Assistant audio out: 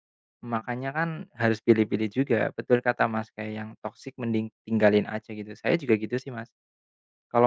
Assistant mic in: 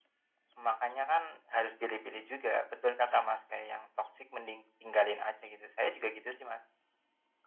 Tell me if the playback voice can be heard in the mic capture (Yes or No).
Yes